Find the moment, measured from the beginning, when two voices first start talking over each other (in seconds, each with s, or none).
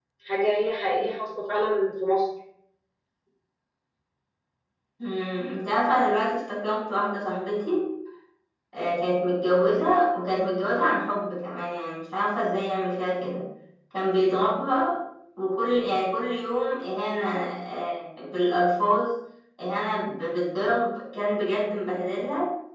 none